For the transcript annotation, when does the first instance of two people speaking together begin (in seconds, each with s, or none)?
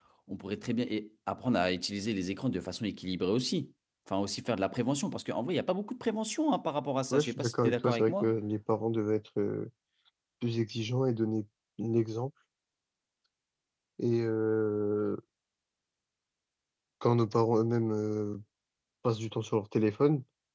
7.1 s